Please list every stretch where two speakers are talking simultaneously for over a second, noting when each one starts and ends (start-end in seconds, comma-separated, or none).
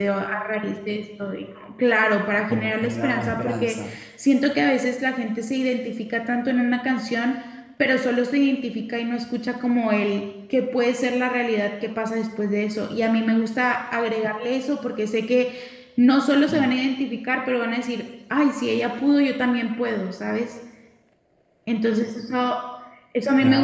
2.5-3.9